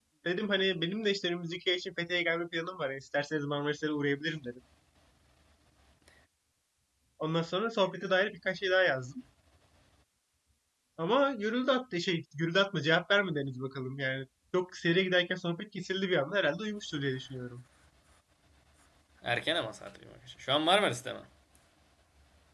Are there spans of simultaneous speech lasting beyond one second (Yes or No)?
No